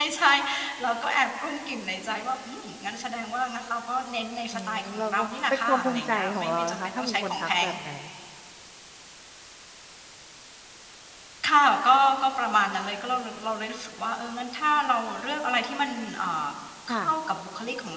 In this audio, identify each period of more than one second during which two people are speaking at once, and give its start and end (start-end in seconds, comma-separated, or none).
4.5-7.7